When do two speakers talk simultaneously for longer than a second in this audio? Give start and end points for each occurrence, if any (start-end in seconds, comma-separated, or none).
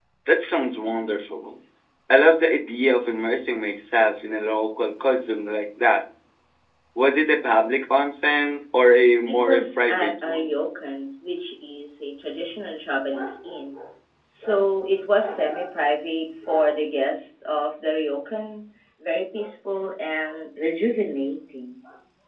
9.3-10.5